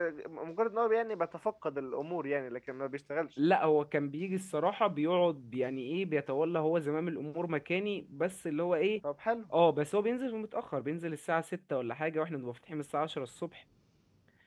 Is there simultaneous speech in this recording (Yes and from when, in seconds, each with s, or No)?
No